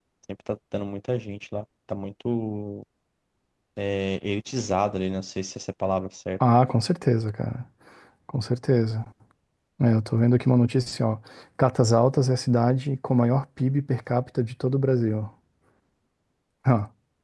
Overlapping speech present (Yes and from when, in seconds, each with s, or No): No